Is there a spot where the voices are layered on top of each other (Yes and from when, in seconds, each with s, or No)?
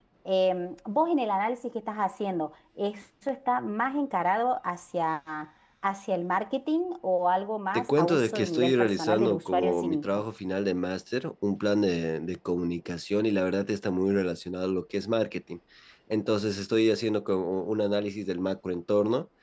Yes, from 7.7 s